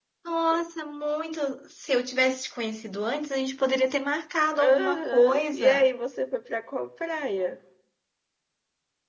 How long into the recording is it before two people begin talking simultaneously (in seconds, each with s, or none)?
4.5 s